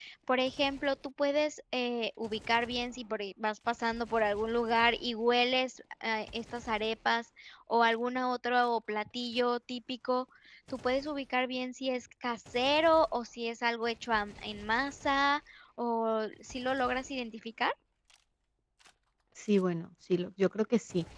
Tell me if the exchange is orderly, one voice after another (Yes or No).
Yes